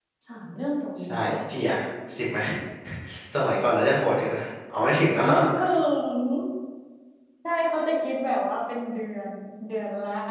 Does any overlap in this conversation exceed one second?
No

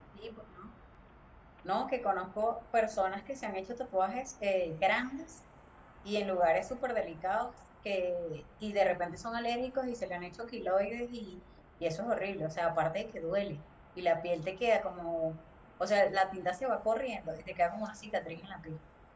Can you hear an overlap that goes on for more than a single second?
No

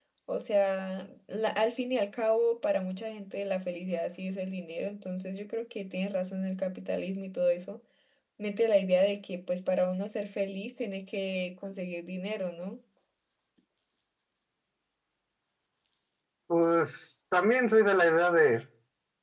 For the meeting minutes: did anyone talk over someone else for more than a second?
No

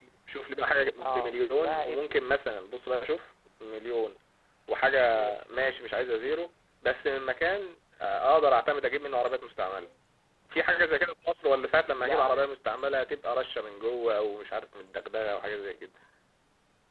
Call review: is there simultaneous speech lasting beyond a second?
Yes, from 1.0 s

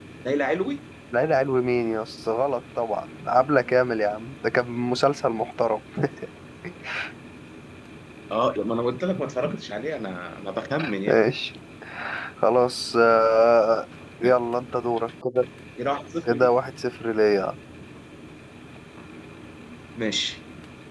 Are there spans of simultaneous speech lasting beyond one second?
No

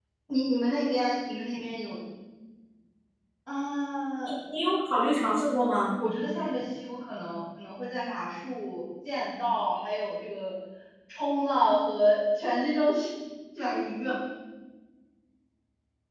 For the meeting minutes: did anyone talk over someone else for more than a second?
No

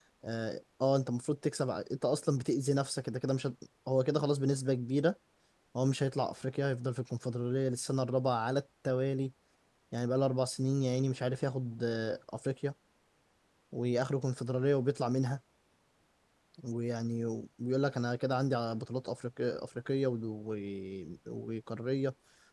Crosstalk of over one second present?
No

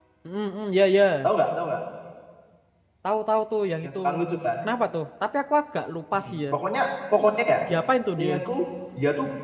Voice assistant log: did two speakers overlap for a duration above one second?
No

